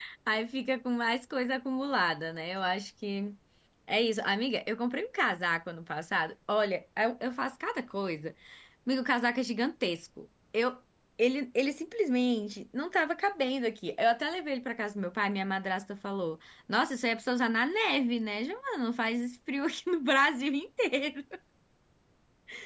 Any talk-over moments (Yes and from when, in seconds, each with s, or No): No